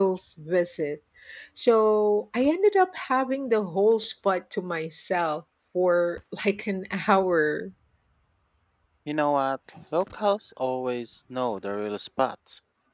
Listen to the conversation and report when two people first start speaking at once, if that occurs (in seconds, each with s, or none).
none